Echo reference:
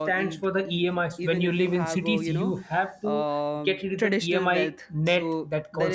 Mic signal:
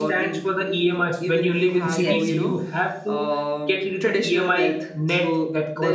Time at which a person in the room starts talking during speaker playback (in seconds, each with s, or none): 1.9 s